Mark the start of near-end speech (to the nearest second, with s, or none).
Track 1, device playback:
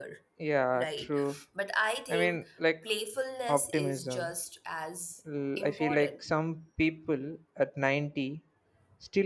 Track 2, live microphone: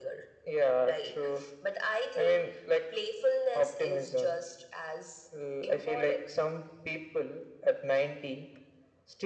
none